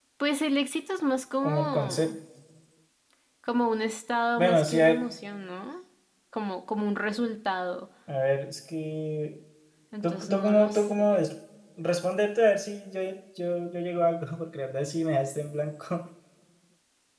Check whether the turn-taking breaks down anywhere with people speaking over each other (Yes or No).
Yes